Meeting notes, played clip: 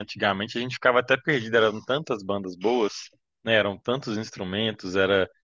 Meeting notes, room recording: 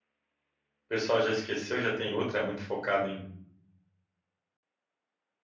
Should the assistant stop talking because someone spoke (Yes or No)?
Yes